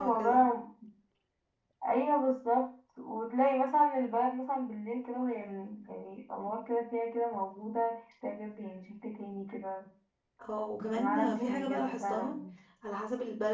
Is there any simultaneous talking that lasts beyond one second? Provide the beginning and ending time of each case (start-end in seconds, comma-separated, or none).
10.8-12.3